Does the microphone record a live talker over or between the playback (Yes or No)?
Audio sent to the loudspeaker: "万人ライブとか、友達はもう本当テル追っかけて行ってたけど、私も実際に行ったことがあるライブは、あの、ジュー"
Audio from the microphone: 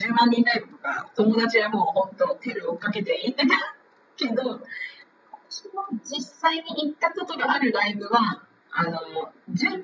No